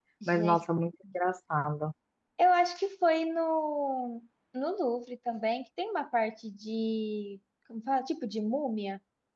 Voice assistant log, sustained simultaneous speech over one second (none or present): none